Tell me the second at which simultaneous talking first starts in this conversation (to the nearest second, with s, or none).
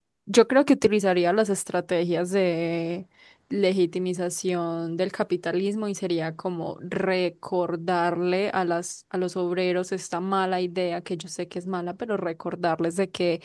none